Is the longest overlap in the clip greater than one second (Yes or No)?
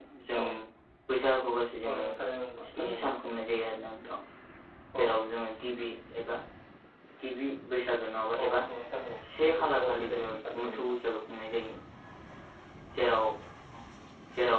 Yes